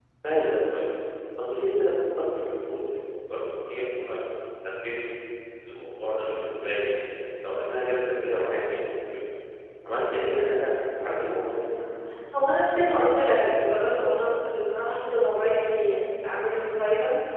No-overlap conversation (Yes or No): Yes